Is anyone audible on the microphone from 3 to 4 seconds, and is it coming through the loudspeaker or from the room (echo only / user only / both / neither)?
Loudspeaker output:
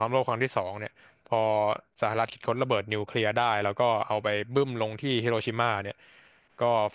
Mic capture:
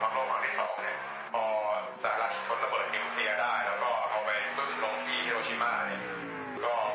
echo only